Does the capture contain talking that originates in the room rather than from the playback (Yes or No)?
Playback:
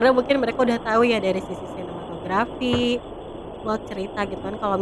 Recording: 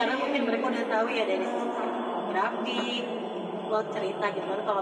Yes